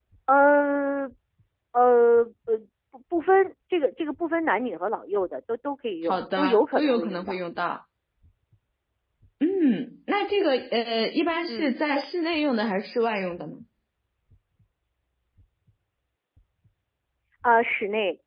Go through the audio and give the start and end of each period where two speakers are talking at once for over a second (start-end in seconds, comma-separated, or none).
6.1-7.4